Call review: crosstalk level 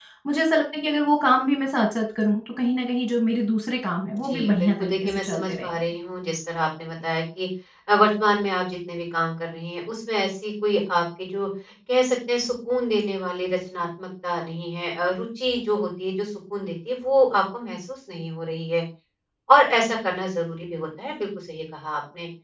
present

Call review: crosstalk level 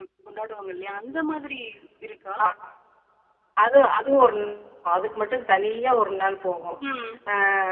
none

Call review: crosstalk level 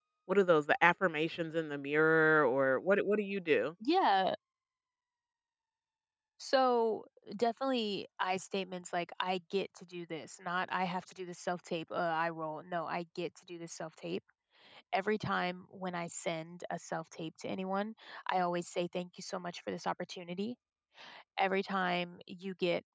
none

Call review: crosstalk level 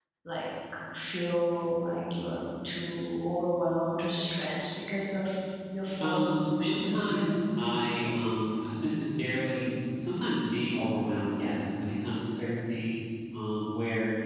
present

